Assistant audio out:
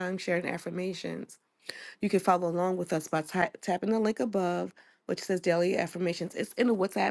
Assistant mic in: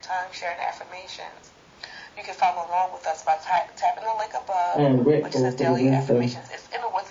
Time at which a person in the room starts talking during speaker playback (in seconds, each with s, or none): 4.8 s